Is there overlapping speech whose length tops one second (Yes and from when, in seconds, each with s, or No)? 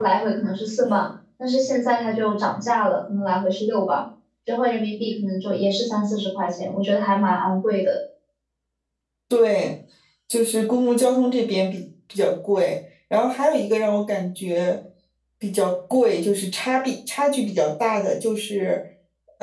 No